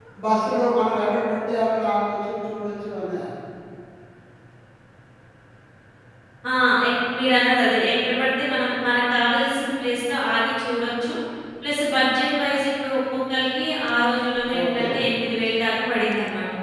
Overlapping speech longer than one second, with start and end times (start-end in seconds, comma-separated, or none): none